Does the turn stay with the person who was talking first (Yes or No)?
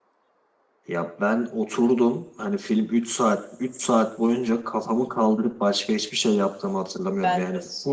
Yes